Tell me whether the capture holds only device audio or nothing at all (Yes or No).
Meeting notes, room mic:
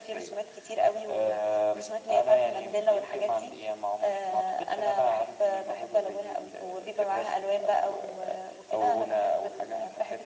Yes